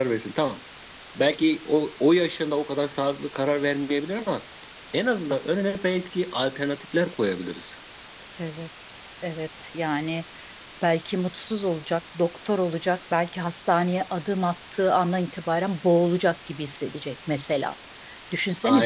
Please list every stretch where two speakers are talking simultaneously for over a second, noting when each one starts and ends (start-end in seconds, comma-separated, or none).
none